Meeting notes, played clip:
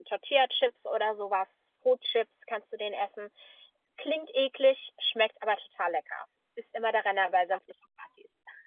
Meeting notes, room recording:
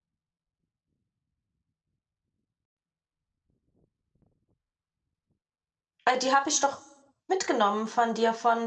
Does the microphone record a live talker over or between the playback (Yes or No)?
Yes